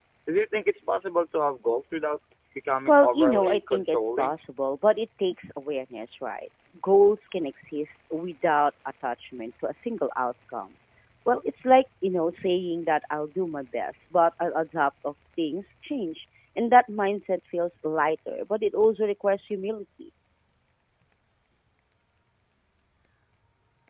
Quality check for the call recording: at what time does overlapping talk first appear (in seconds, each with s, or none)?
2.9 s